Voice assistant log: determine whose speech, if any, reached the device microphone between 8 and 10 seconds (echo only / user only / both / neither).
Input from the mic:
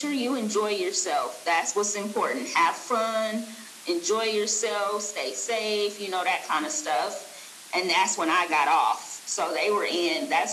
echo only